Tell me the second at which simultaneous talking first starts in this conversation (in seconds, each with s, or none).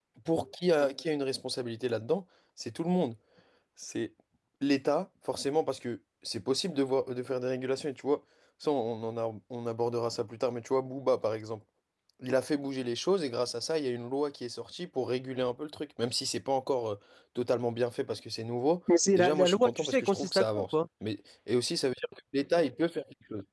19.2 s